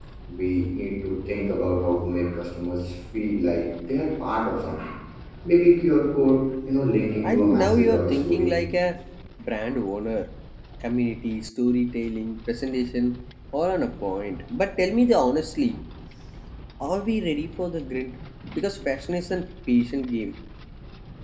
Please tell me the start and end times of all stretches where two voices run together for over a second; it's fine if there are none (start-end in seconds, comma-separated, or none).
7.2-8.5